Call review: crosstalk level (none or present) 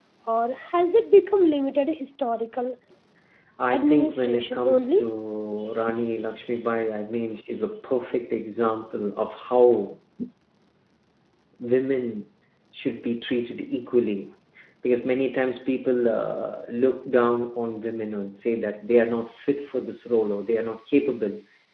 present